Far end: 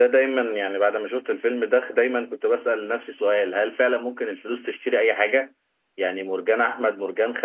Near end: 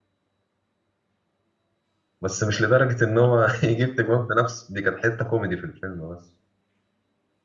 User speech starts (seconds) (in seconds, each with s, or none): 2.2 s